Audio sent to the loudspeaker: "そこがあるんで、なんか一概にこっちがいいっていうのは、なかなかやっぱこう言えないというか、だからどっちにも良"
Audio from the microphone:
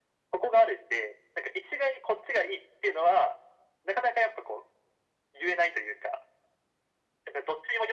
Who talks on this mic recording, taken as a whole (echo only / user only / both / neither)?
echo only